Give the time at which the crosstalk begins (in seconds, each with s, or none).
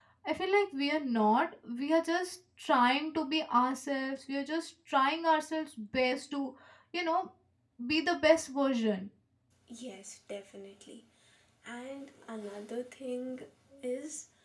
none